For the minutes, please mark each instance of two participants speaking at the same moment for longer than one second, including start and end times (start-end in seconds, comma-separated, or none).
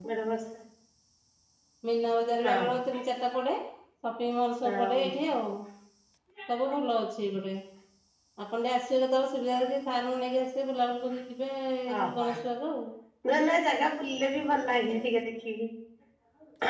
none